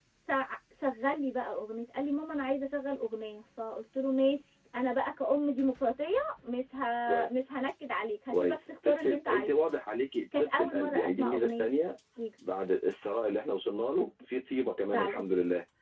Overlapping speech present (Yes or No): Yes